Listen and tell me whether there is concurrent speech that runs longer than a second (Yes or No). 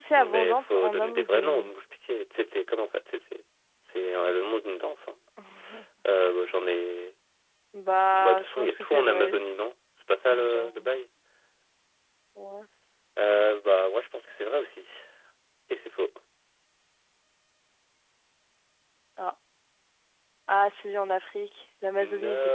Yes